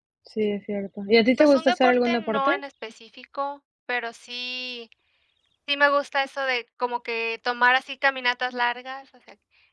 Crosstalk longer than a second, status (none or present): present